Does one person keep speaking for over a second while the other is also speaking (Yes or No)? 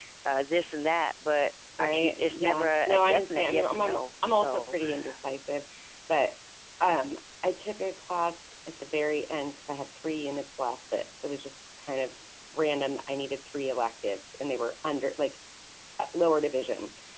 Yes